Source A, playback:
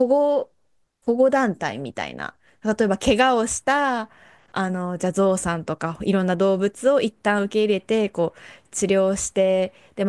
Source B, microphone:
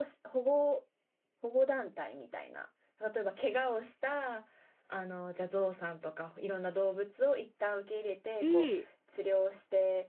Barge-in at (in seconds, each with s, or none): 8.4 s